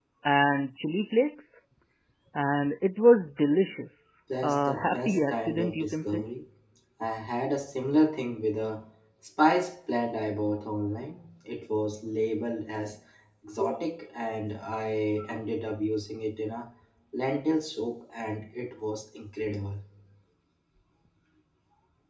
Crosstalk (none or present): present